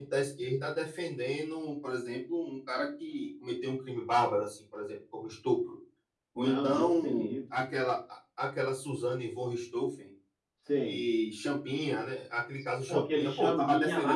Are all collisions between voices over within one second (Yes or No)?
No